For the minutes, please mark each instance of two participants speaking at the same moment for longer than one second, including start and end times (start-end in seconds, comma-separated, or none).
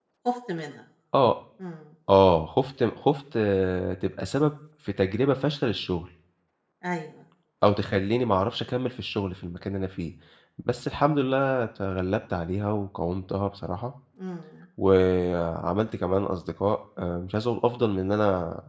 none